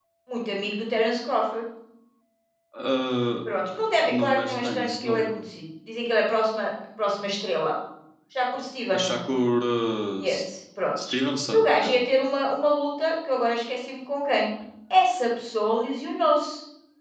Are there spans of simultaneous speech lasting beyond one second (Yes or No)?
Yes